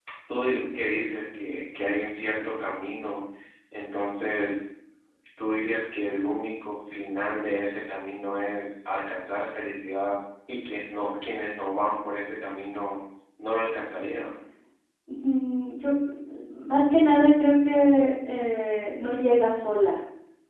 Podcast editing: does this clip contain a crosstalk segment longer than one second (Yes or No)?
No